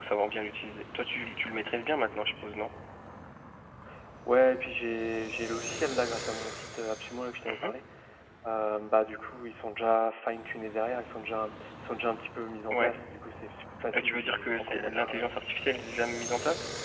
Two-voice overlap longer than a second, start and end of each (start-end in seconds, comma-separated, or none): 13.9-15.2